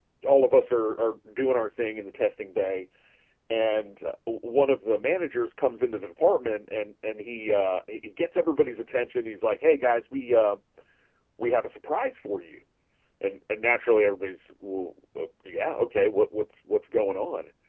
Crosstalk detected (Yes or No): No